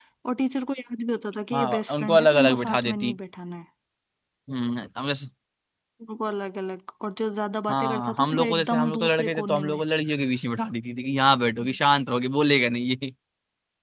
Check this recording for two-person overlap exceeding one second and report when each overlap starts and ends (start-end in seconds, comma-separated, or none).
1.5-3.2, 7.7-9.8